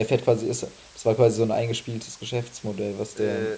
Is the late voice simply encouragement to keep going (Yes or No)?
No